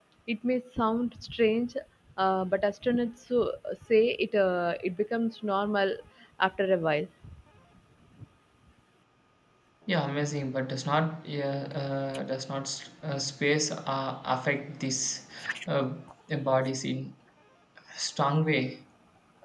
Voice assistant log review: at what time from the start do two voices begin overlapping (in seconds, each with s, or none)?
none